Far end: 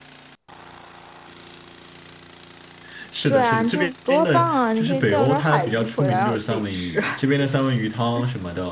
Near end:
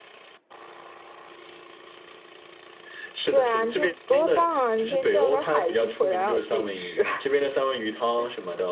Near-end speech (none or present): none